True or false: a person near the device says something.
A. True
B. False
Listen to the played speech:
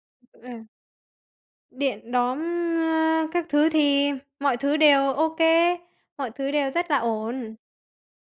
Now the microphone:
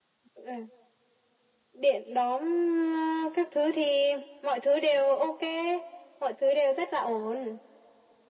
B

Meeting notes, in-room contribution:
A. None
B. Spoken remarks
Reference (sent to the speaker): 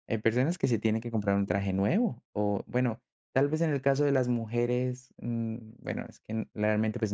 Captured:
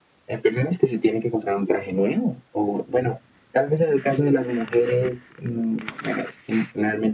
A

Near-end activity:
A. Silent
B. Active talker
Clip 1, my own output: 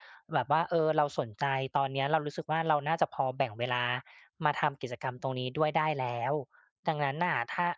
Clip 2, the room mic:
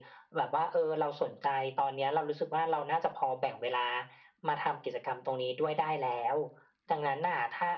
A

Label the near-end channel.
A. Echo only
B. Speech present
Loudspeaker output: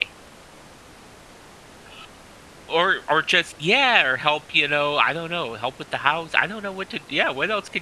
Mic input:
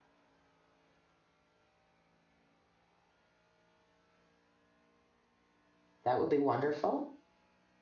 B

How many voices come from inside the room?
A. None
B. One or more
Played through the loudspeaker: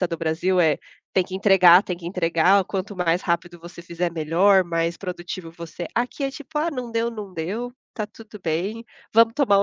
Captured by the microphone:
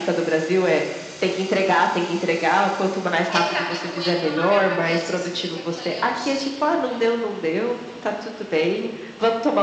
B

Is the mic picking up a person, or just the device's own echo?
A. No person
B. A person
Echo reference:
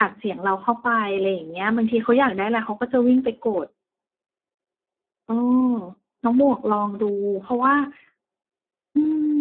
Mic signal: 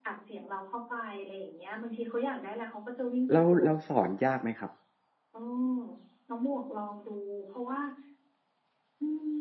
B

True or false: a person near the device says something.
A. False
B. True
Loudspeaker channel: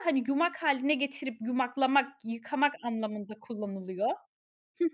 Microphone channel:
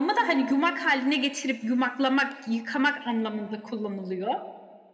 A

